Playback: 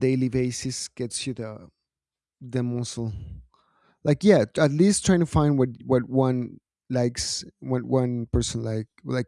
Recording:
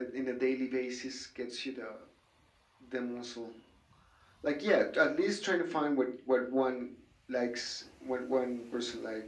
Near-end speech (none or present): none